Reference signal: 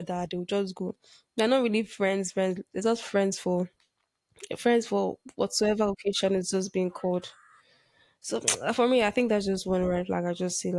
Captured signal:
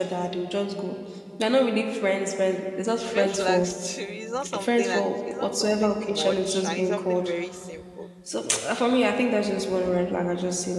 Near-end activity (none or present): present